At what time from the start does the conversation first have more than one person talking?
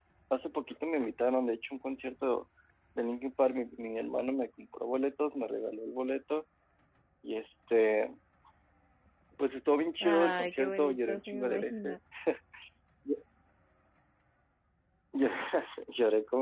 10.0 s

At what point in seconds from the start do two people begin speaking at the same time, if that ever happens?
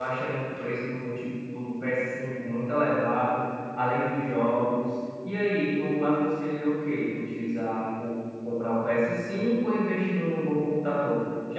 none

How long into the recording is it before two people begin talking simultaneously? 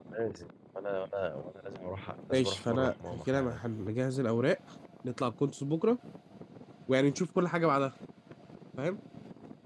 2.3 s

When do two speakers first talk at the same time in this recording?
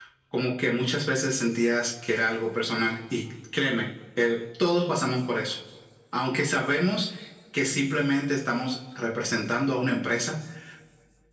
none

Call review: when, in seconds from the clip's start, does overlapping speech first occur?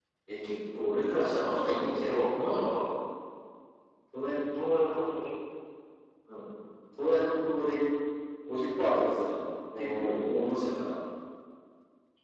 1.1 s

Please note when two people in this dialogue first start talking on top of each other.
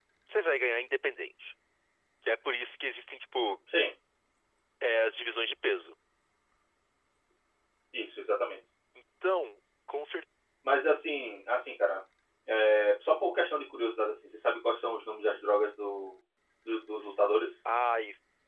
none

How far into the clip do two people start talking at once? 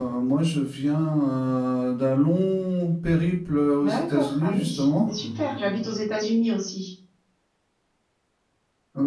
3.8 s

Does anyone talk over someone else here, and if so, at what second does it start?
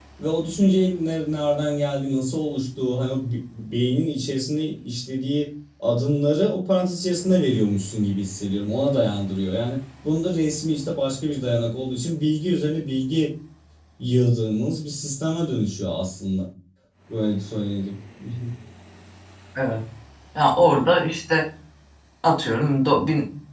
none

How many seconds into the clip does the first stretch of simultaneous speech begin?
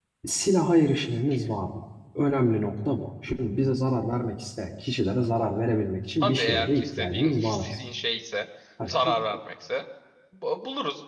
6.2 s

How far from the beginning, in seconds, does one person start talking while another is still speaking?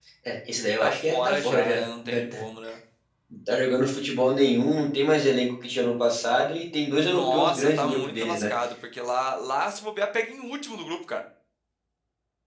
0.8 s

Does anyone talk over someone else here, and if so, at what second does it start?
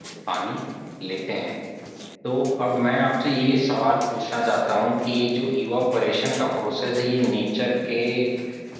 none

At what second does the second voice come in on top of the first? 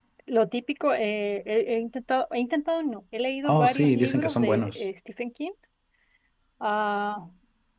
3.4 s

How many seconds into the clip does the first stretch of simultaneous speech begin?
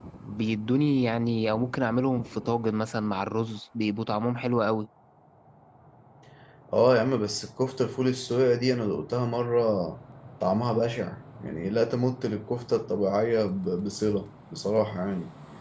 none

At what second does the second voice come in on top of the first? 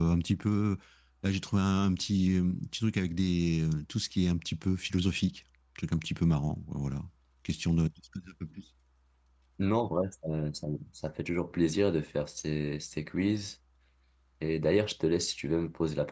none

